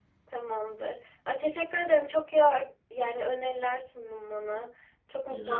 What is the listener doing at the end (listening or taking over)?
taking over